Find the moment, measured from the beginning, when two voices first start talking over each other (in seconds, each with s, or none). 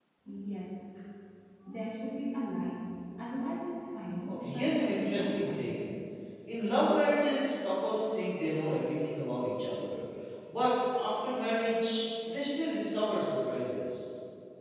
4.2 s